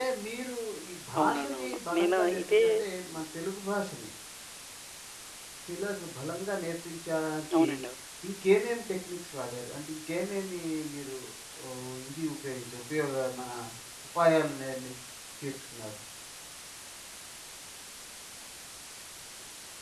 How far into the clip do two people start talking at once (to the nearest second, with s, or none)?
1 s